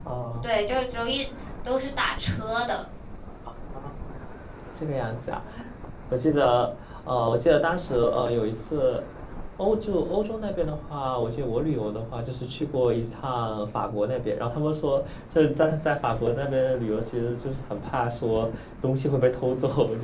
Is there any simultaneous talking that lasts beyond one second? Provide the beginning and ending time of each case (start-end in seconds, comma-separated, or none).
none